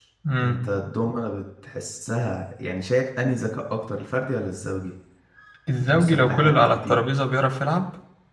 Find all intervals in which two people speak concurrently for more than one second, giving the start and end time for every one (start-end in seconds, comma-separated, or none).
5.8-7.0